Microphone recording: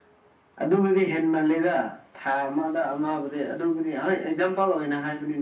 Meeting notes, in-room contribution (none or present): none